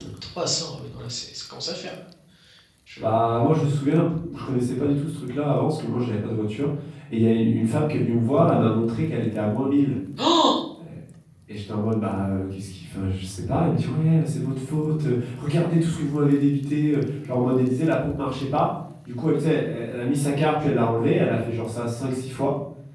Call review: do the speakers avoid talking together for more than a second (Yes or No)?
Yes